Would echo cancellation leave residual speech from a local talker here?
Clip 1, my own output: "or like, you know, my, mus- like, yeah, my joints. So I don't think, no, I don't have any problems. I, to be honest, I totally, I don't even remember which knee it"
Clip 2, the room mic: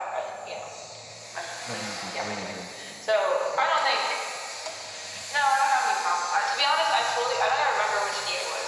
Yes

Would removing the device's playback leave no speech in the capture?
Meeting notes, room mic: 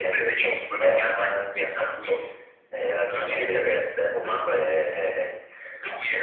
Yes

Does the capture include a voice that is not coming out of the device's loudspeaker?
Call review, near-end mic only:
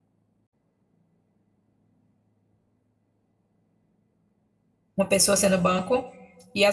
Yes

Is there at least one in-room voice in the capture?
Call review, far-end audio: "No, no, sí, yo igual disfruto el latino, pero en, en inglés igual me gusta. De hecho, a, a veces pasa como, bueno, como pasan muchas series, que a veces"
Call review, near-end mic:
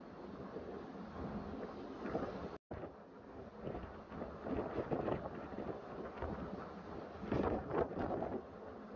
No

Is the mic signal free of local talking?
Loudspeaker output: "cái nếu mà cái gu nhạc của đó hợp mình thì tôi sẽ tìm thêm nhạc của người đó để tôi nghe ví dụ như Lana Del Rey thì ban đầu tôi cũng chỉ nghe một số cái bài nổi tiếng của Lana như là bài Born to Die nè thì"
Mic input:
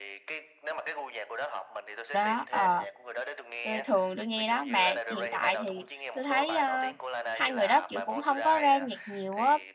No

